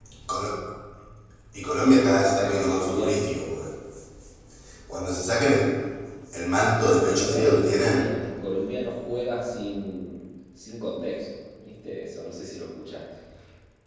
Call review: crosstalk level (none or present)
present